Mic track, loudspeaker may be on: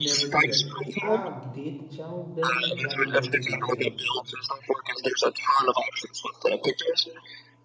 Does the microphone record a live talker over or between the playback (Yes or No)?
Yes